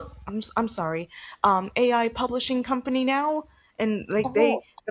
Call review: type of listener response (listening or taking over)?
listening